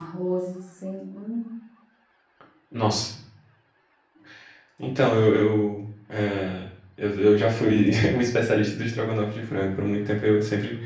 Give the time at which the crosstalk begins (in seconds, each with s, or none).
none